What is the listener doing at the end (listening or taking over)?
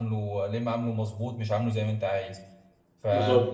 listening